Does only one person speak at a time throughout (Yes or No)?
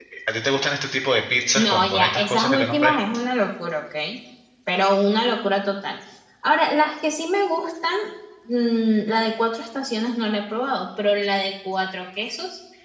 No